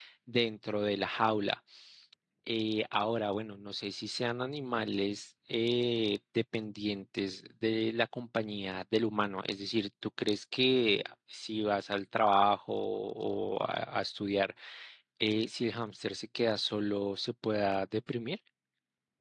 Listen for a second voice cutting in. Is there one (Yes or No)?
No